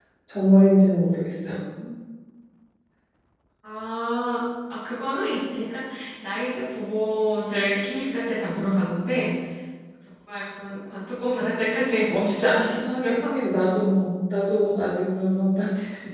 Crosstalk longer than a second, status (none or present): none